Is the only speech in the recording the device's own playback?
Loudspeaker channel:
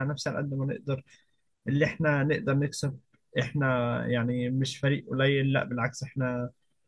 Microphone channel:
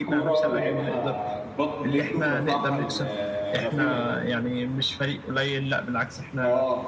No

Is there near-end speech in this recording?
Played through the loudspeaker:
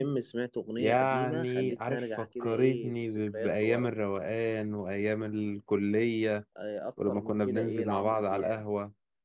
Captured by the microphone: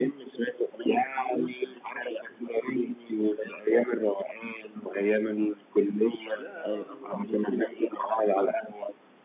Yes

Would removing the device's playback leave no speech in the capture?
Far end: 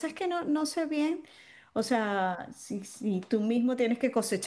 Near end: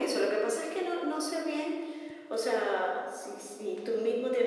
Yes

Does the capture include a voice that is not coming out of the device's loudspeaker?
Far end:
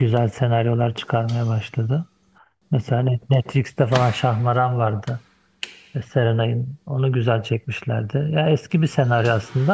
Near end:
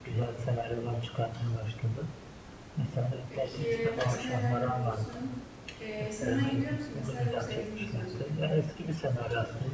Yes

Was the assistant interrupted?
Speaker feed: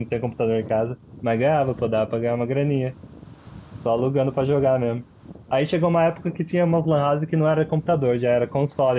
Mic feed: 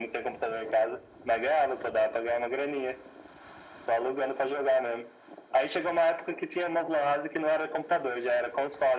No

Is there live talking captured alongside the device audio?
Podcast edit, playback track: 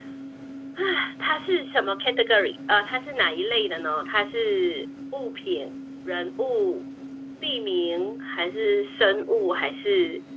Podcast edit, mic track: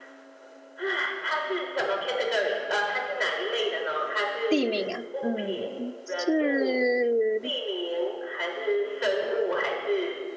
Yes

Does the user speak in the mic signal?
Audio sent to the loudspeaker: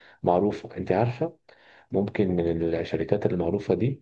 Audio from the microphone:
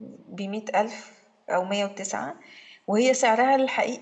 Yes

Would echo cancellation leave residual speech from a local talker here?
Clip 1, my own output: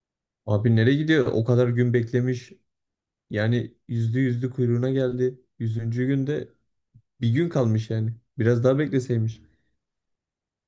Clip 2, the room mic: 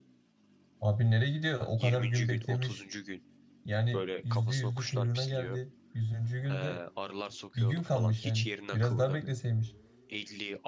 Yes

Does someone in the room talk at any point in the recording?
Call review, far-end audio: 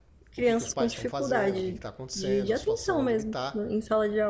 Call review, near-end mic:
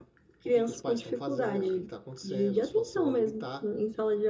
No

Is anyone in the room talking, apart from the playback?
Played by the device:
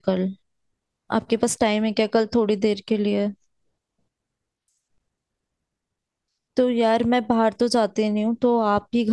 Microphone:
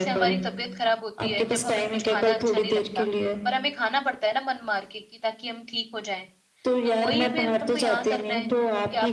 Yes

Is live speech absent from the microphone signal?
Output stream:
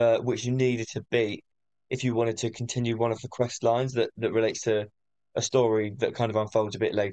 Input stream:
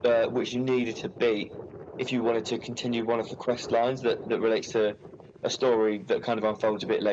Yes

